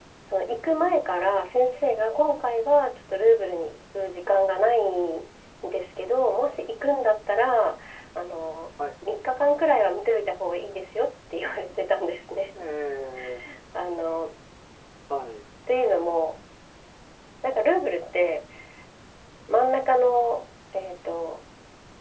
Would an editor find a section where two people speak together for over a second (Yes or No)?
No